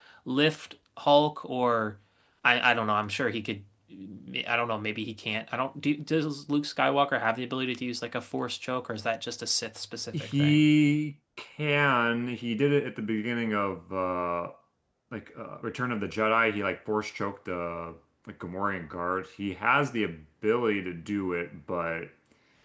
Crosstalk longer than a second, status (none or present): none